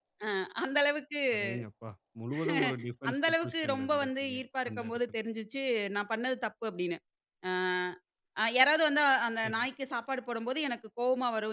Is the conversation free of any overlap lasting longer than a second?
No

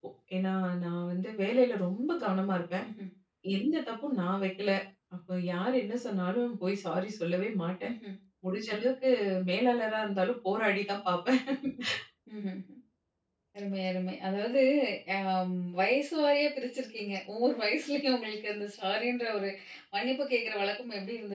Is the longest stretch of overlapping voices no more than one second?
Yes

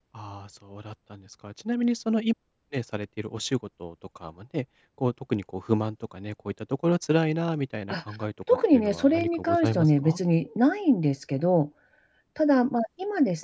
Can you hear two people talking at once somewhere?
Yes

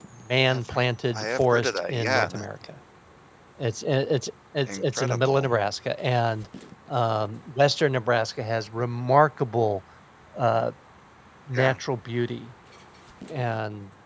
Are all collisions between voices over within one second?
No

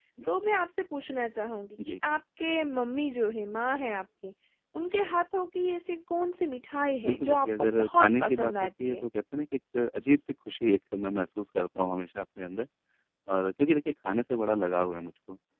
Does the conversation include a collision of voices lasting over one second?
Yes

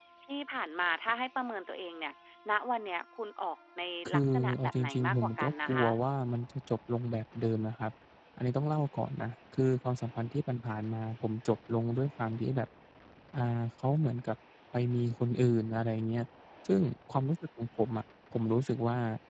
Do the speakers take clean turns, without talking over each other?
No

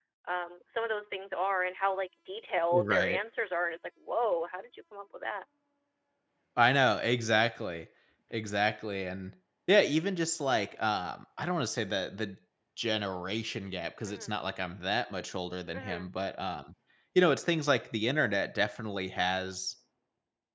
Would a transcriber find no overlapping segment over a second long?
Yes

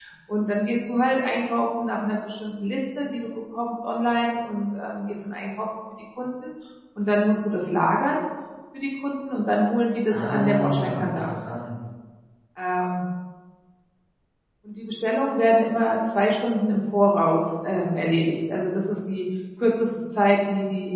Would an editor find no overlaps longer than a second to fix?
No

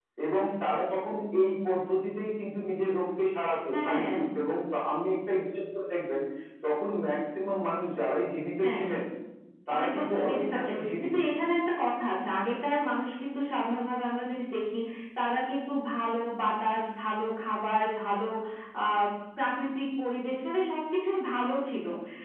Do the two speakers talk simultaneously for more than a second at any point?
Yes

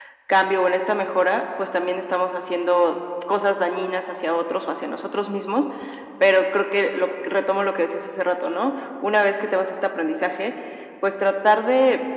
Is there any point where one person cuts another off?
No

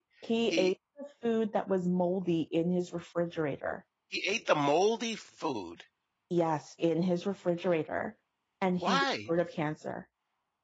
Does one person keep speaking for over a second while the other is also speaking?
No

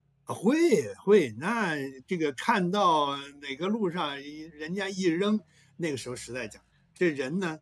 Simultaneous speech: No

